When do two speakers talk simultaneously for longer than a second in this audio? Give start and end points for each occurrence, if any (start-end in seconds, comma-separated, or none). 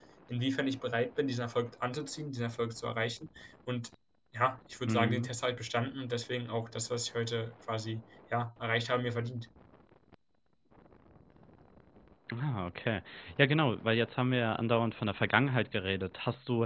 none